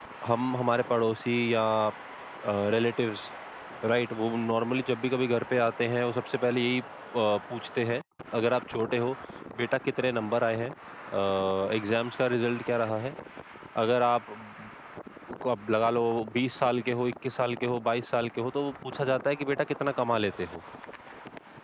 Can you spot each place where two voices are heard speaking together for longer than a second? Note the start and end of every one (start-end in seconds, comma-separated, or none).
none